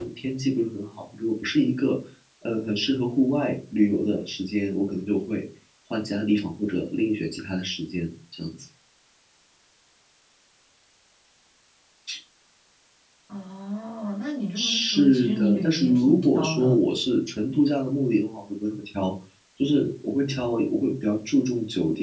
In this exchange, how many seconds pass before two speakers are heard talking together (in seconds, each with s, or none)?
14.6 s